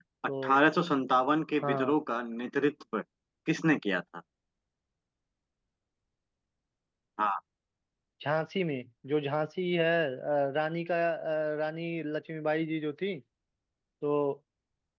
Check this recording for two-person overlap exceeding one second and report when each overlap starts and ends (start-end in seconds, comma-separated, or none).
none